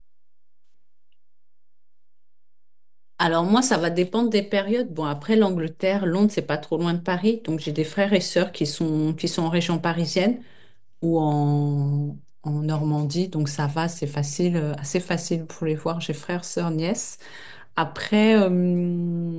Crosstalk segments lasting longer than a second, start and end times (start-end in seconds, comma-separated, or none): none